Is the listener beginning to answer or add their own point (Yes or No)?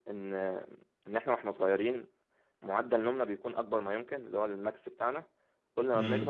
No